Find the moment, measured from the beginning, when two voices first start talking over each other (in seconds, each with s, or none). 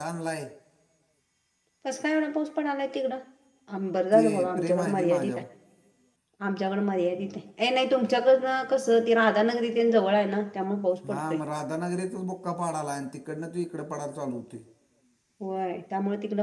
4.1 s